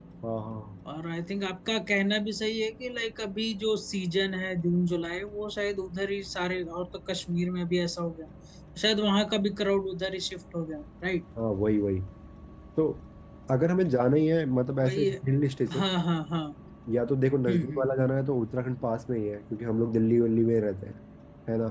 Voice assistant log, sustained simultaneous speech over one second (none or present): none